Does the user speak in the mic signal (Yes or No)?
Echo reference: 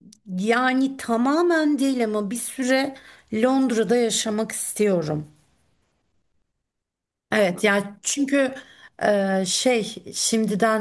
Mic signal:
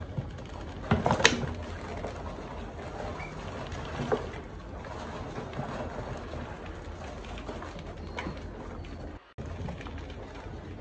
No